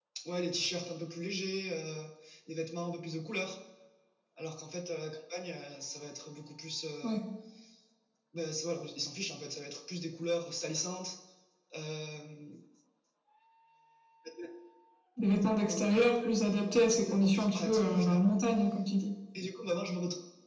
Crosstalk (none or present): present